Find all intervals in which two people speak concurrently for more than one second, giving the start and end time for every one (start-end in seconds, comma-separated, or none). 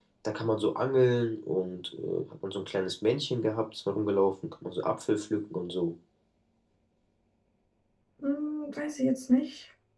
none